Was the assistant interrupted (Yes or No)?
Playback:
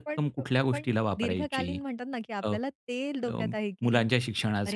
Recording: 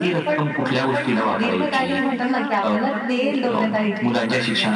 Yes